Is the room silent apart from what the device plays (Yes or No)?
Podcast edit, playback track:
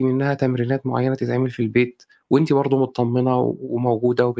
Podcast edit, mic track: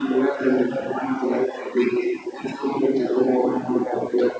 Yes